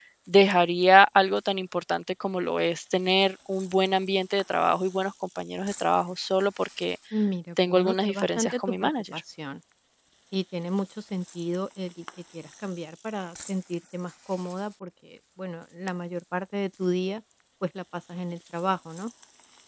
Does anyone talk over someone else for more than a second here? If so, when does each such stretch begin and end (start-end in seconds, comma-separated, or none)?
7.7-9.2